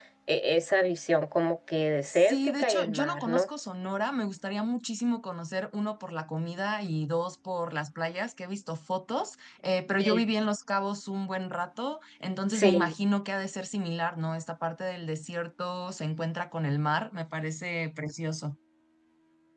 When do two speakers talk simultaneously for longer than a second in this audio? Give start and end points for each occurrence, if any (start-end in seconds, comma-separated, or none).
2.0-3.5